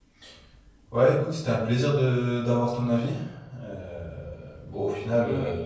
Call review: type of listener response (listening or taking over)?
listening